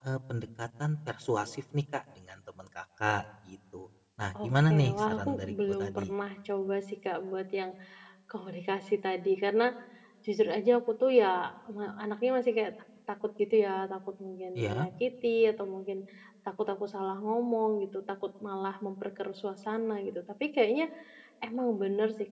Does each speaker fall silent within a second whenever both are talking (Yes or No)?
No